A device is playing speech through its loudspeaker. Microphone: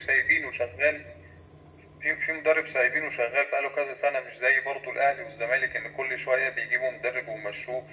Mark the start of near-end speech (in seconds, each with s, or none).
none